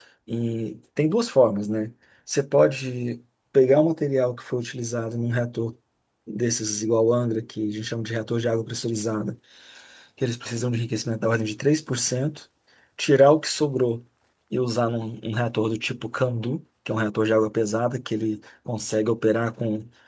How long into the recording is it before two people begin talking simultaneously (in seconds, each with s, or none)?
none